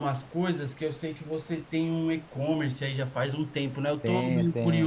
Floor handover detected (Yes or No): No